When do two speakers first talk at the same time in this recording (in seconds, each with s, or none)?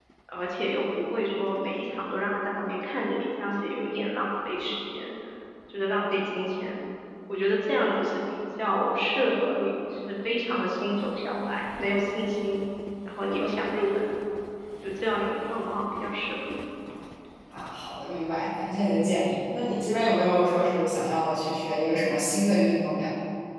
none